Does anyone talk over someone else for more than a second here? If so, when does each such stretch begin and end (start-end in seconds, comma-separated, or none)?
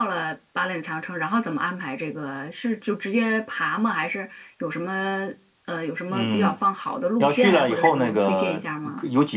7.2-8.6